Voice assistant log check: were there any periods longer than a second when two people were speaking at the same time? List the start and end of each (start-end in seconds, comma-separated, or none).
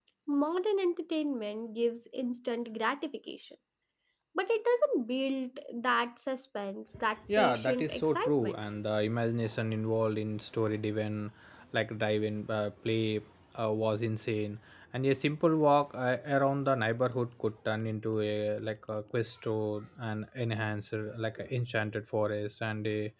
7.4-8.6